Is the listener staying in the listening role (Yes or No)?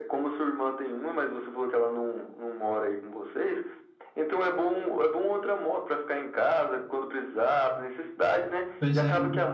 Yes